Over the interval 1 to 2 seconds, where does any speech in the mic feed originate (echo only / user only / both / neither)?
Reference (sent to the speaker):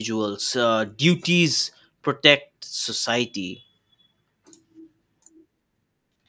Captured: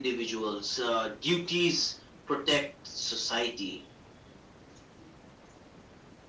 echo only